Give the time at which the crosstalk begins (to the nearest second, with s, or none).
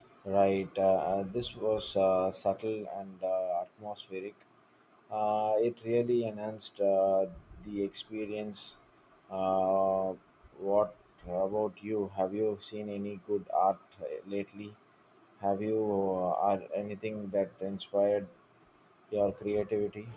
none